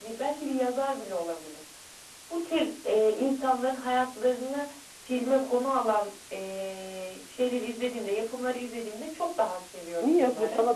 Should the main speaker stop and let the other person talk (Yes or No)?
Yes